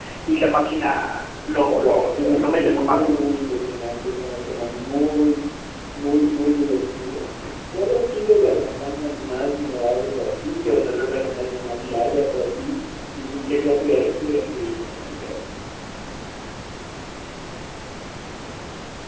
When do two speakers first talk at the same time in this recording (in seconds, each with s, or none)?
1.7 s